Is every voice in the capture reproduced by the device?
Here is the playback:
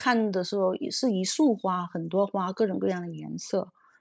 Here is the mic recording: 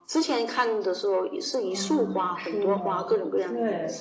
No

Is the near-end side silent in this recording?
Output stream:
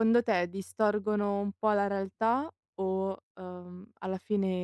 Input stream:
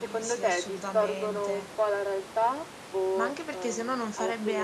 No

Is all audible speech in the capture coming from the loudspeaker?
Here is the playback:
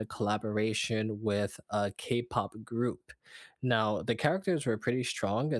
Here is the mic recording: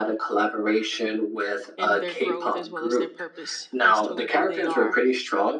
No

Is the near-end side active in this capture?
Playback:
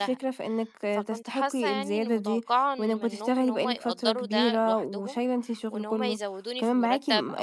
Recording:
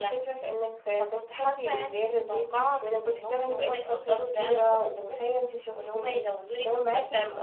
No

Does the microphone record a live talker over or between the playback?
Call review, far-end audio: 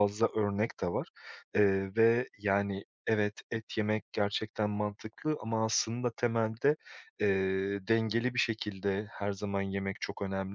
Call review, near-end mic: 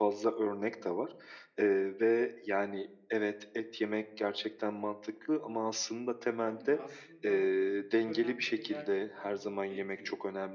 Yes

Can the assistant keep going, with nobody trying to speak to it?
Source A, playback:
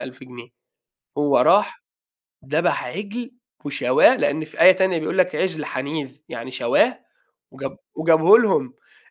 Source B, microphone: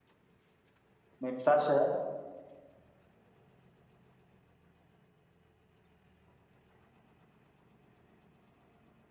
No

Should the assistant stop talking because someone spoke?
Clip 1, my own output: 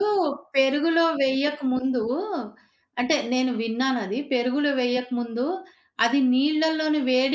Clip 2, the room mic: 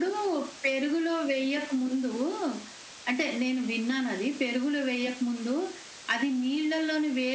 No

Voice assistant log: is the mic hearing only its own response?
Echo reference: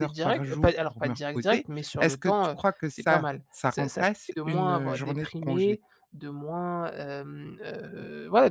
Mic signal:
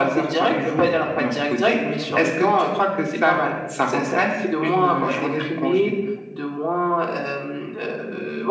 Yes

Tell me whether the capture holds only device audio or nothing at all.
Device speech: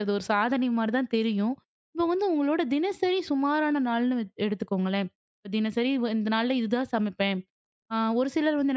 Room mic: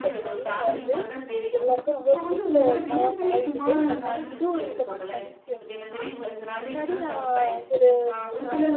No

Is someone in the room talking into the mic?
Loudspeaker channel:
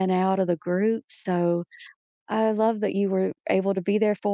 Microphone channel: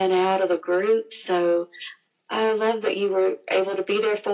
No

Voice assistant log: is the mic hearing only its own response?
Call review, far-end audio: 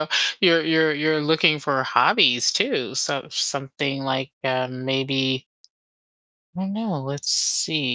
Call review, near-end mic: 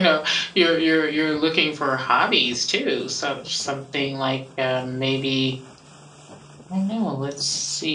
Yes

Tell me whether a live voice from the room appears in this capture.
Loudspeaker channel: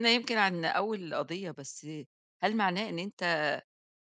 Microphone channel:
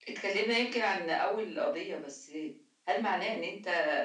No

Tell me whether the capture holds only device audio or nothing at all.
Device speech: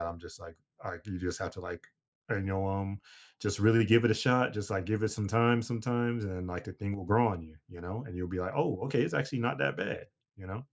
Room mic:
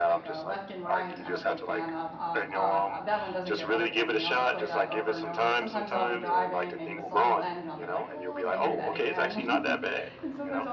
No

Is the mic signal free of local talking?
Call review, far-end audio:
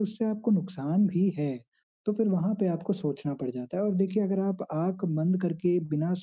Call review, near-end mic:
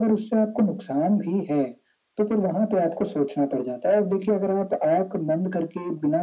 Yes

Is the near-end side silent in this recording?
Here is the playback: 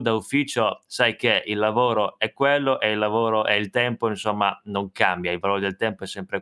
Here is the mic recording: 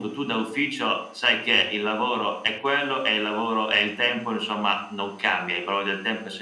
Yes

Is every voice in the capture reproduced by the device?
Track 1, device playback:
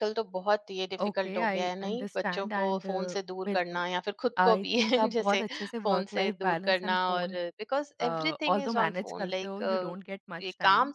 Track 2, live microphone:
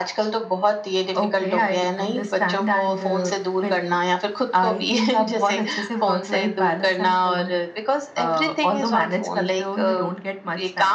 Yes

